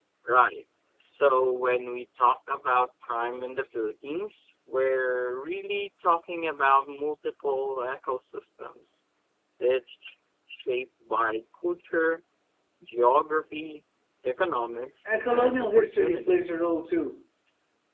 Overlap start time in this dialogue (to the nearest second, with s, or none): 15 s